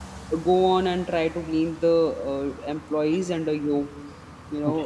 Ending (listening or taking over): taking over